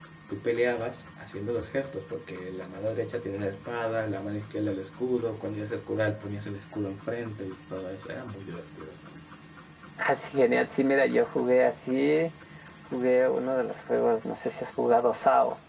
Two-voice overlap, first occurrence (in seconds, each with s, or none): none